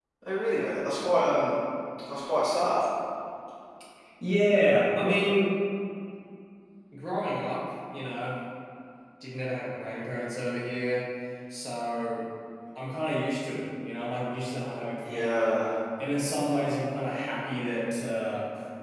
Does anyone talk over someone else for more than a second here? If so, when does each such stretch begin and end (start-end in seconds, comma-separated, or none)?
none